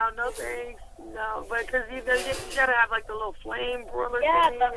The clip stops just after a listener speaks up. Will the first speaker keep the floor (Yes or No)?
No